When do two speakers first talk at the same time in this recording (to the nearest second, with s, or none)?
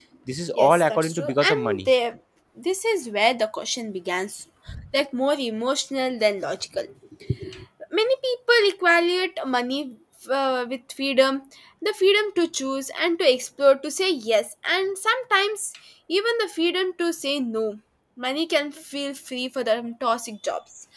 1 s